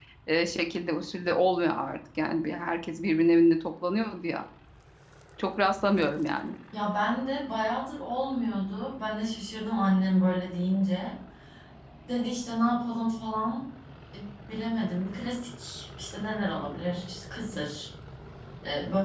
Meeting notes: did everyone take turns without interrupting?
Yes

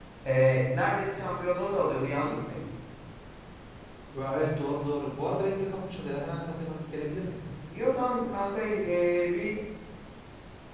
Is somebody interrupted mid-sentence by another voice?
No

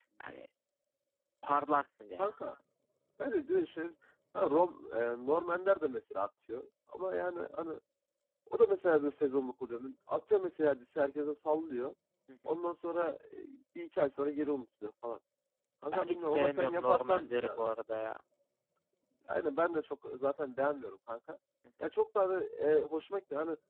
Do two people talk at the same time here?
Yes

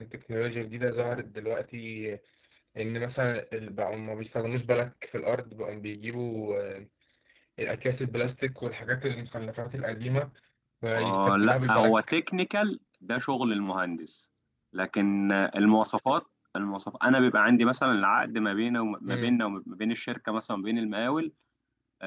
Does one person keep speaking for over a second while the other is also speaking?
Yes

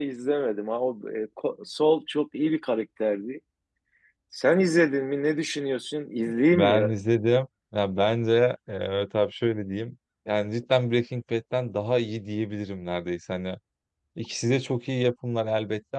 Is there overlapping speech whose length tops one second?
No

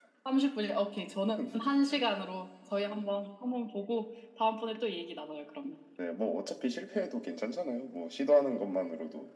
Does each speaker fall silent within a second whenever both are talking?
Yes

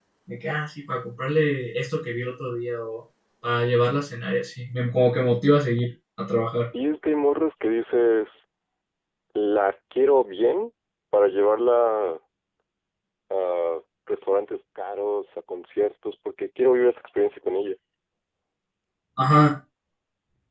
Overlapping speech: No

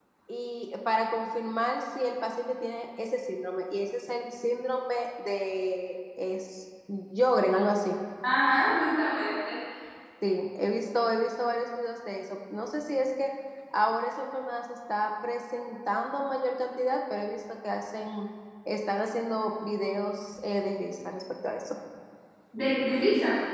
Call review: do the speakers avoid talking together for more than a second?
Yes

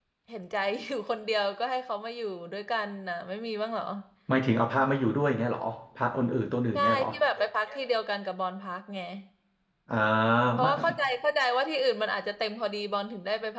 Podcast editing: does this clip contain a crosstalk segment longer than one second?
No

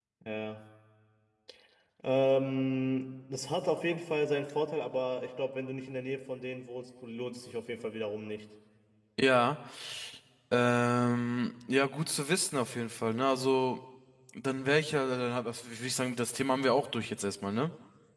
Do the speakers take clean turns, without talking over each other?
Yes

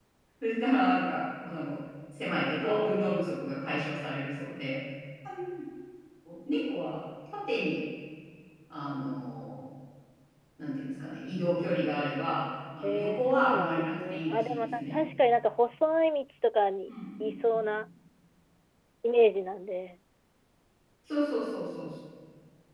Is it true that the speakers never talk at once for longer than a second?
No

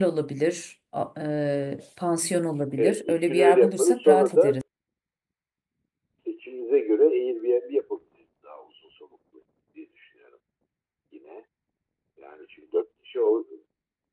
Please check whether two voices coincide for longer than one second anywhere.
Yes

